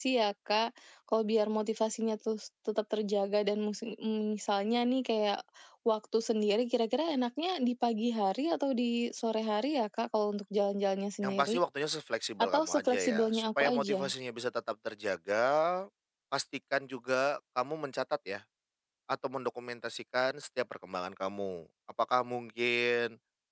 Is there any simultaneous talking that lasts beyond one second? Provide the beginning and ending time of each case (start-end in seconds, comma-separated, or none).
12.4-14.0